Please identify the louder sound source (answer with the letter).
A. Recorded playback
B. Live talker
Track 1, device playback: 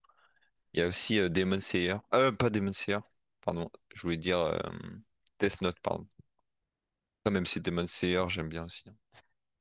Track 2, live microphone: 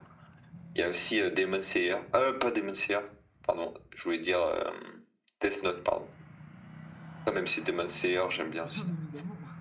A